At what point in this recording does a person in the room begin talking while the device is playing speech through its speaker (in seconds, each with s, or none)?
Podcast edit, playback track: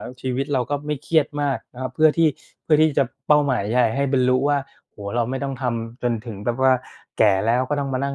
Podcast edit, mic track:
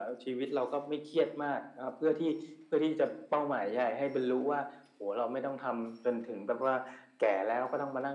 none